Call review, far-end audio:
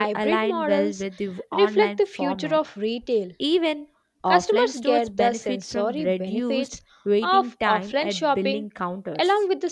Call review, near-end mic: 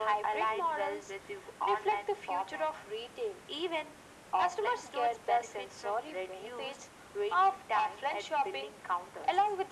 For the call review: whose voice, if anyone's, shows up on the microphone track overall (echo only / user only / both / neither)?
echo only